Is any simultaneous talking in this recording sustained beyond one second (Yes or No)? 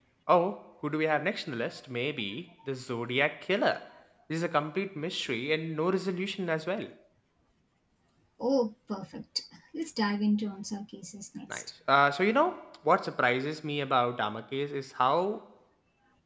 No